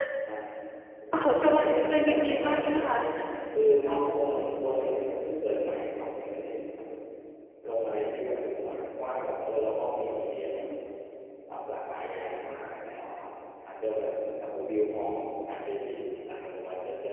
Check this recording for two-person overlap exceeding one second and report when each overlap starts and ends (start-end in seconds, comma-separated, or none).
1.2-3.0